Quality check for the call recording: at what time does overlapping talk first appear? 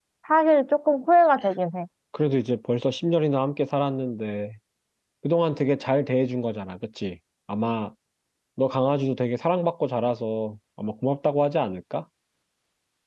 none

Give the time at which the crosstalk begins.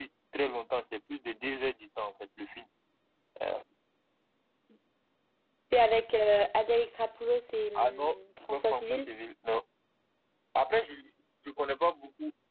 7.8 s

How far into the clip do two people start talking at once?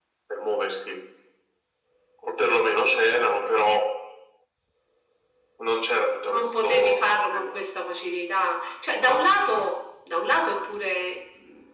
6.2 s

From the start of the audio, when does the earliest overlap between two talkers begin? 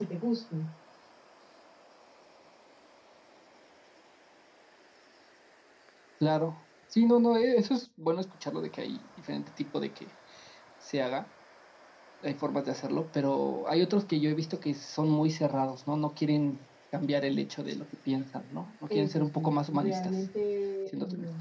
18.9 s

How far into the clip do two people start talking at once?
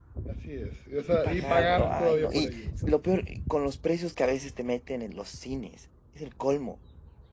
1.1 s

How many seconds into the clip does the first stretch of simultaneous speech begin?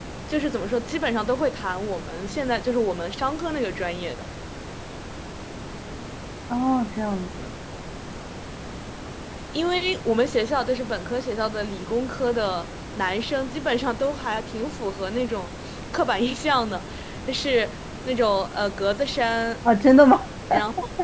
none

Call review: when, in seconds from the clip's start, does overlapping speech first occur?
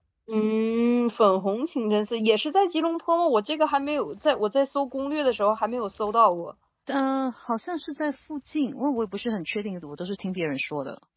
none

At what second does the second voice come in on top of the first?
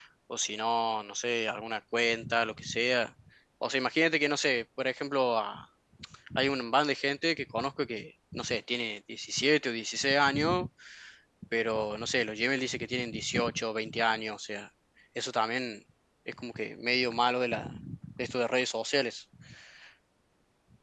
none

